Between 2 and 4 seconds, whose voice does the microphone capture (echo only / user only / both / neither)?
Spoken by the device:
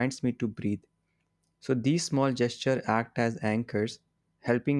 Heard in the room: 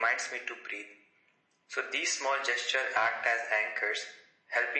echo only